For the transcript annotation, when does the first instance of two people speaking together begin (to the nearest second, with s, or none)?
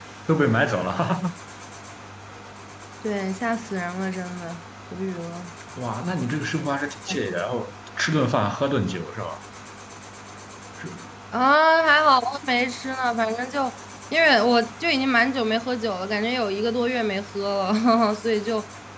none